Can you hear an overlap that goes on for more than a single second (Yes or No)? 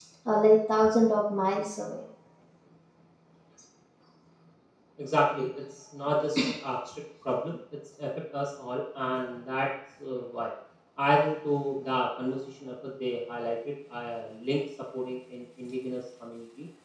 No